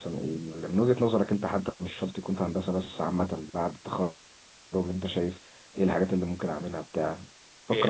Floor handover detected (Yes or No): Yes